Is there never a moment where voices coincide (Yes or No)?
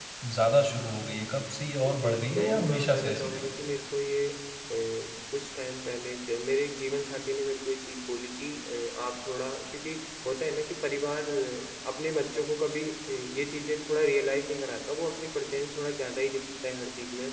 No